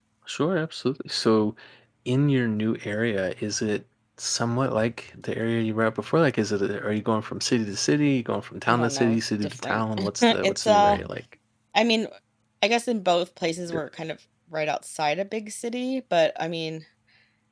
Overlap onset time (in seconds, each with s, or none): 8.7 s